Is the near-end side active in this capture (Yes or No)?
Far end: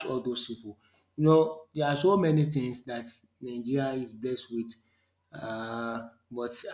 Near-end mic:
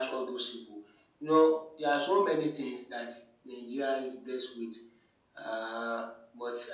No